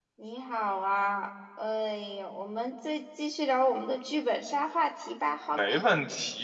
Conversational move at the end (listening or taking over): taking over